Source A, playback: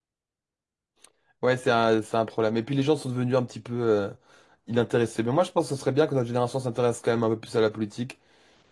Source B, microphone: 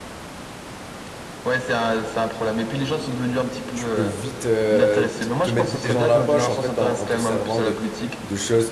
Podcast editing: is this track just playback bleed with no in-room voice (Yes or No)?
No